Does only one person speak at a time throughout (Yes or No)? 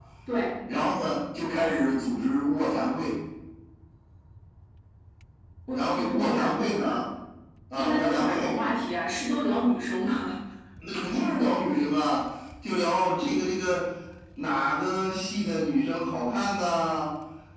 No